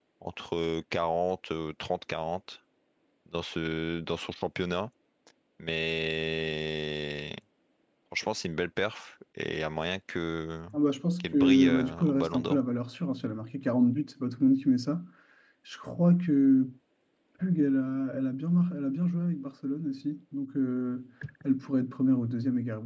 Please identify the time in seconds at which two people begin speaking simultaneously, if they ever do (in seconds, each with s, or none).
11.2 s